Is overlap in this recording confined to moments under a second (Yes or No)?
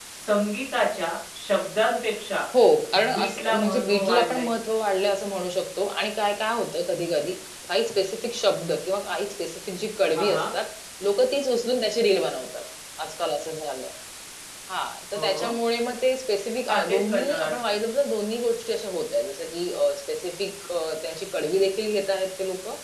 No